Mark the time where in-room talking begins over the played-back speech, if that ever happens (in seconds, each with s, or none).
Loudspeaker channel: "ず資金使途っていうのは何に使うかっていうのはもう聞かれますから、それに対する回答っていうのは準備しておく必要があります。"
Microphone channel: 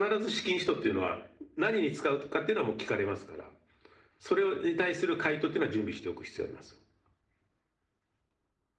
none